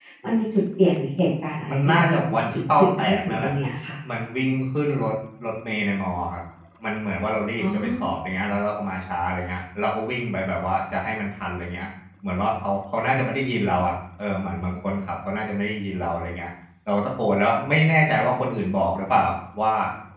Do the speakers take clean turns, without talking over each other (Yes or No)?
No